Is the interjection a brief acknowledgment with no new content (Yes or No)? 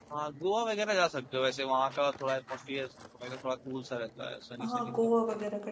No